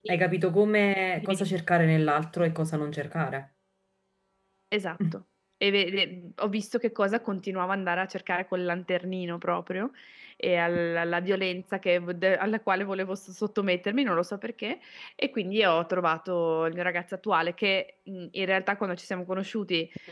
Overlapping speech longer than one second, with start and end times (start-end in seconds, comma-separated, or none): none